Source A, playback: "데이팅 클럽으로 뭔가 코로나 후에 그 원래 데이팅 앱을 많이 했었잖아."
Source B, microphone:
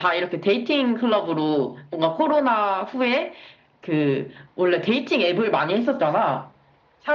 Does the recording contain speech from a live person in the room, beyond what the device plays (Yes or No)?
No